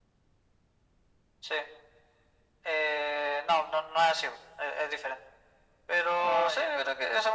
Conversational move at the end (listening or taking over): listening